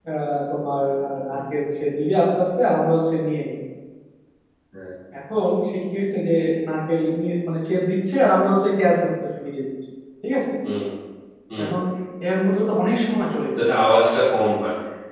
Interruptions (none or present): none